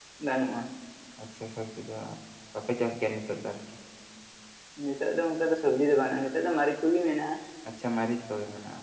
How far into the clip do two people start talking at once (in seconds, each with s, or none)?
none